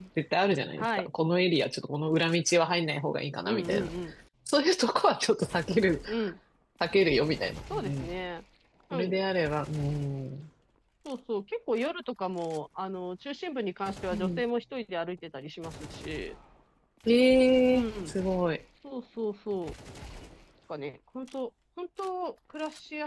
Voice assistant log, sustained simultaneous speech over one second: none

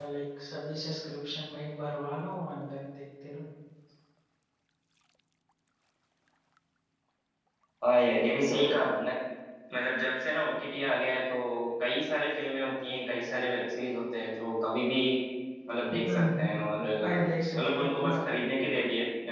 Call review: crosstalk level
present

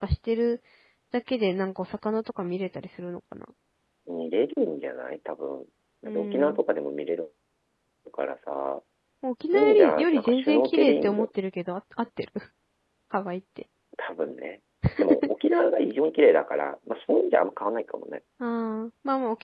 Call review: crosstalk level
present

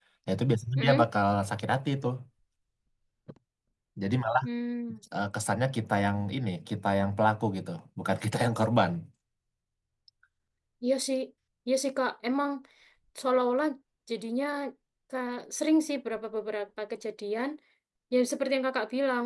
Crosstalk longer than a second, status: none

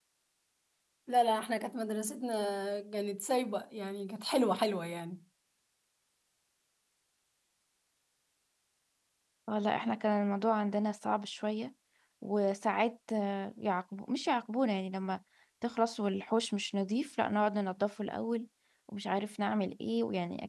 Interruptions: none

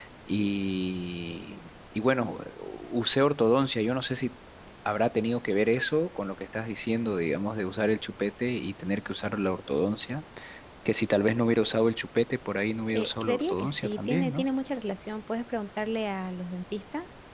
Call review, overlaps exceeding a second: present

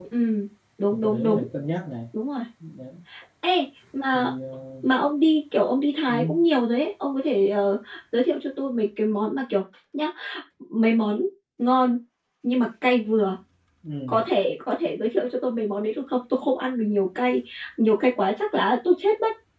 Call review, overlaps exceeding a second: none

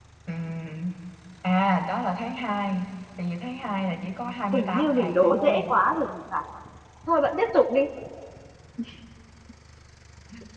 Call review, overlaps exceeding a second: present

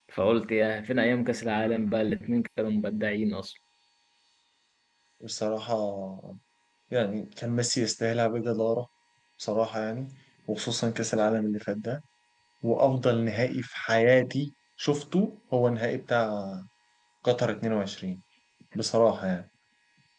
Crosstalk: none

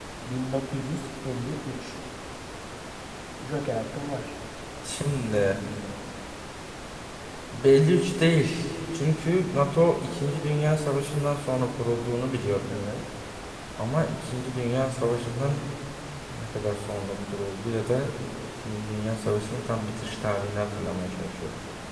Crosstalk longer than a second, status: none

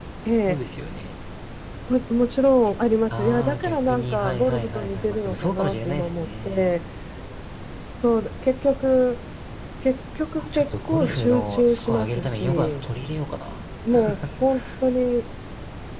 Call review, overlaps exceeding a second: present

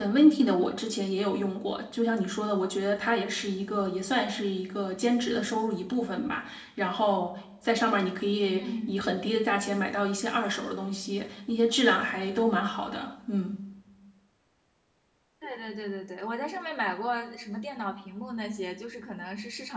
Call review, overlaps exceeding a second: none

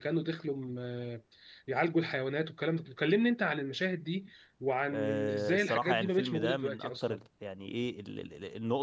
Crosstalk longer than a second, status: present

